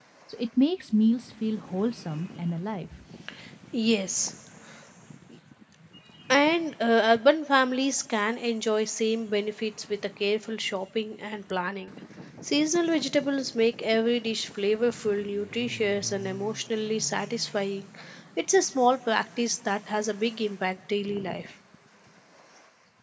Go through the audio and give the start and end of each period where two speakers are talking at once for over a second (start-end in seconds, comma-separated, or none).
none